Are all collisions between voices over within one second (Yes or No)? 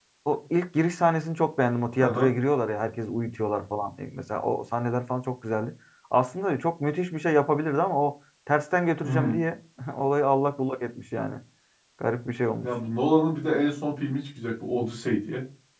Yes